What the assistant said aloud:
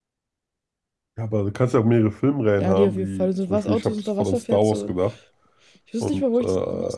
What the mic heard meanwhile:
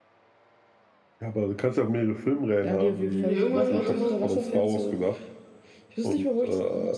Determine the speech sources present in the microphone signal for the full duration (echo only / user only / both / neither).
both